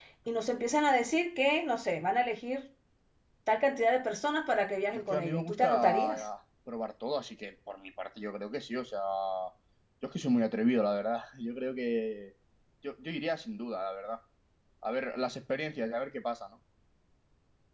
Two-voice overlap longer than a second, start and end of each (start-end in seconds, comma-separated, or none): 4.9-6.2